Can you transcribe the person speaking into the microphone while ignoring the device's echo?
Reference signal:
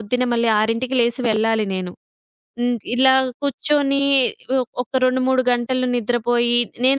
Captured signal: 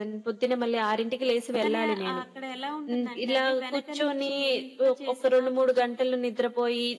కానీ ఆ- ఆ అక్కడ ఎలా ఉంటుందంటే అండి, వెనక నుంచి ఎంత చేసినా కొంచెం

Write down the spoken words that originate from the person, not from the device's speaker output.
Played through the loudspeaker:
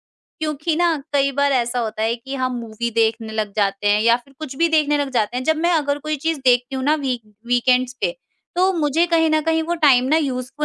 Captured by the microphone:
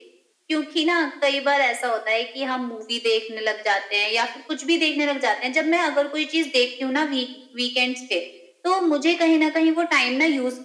none

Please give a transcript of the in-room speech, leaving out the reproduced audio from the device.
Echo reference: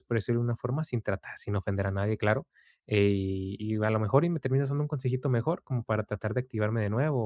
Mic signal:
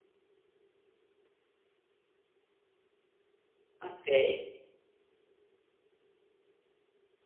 okey,

